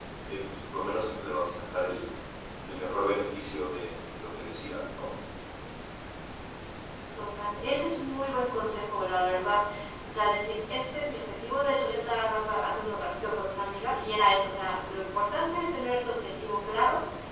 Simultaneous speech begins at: none

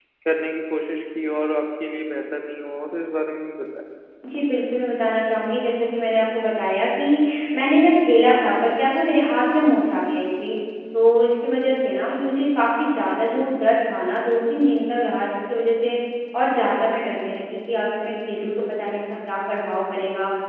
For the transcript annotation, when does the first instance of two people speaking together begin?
none

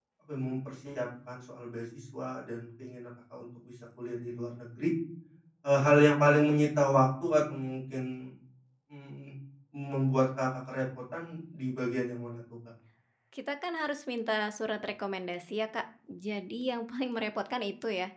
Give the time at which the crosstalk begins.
none

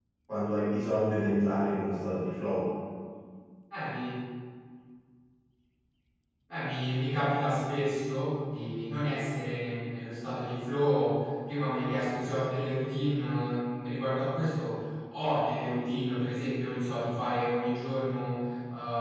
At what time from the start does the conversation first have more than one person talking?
none

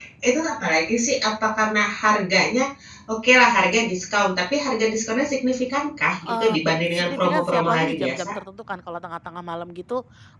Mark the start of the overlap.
6.3 s

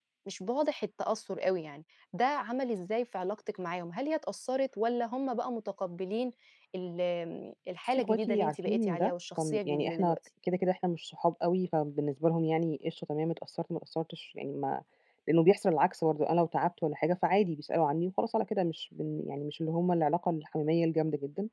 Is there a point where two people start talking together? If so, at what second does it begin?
7.9 s

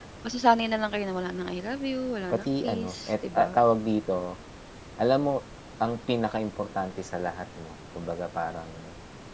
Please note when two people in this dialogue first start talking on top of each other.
2.3 s

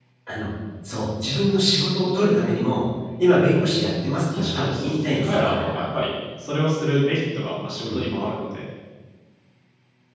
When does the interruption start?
4.2 s

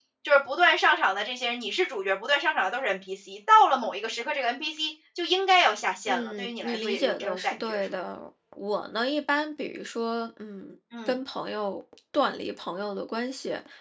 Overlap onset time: 6.1 s

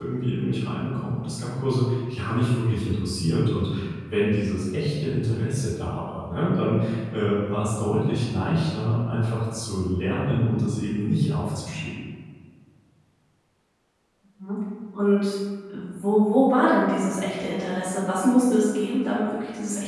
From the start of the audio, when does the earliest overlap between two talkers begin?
none

